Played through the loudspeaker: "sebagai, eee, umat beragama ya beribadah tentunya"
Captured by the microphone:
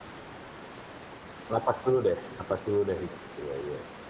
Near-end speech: present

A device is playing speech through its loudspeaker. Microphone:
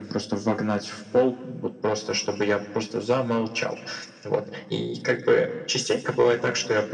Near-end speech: none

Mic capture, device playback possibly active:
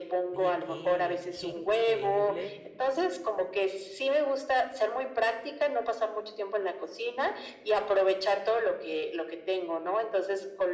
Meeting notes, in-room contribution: present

